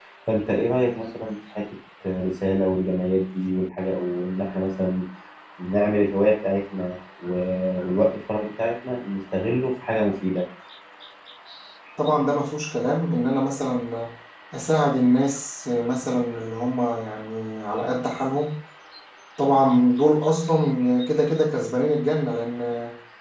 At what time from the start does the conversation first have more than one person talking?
none

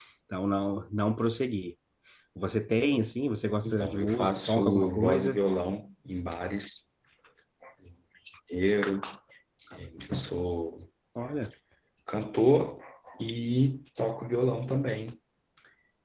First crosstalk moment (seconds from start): 3.6 s

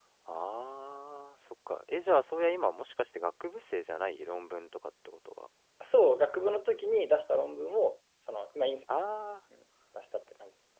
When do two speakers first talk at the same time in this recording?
none

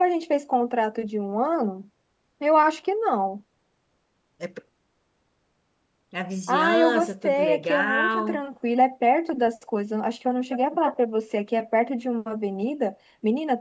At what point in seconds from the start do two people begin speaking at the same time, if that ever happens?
6.5 s

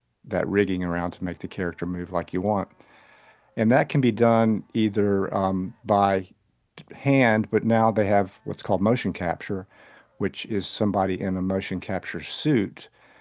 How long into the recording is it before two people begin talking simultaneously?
none

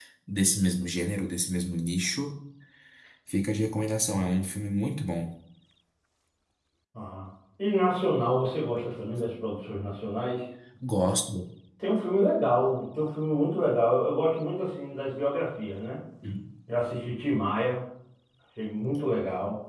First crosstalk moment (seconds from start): none

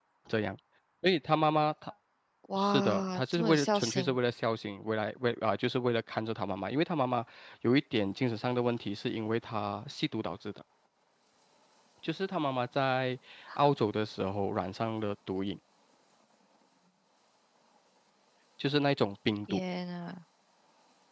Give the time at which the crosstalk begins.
2.5 s

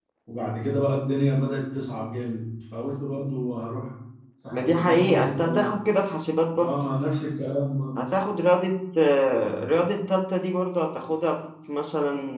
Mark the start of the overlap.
4.5 s

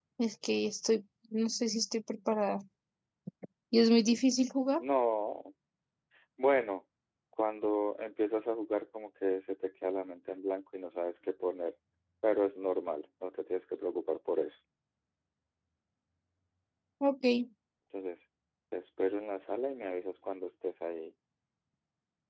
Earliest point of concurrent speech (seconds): none

